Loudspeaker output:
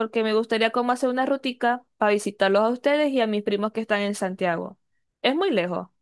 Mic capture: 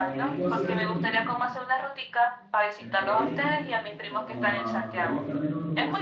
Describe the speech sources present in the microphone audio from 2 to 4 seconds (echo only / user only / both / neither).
both